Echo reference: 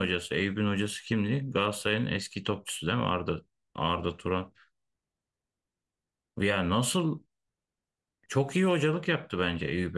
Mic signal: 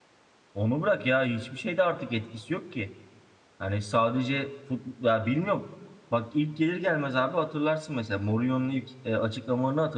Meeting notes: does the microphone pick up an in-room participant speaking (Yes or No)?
Yes